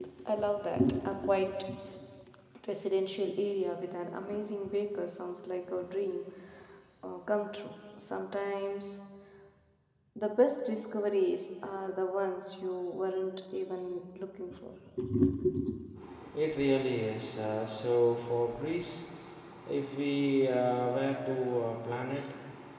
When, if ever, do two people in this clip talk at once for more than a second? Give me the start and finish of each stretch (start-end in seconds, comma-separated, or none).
none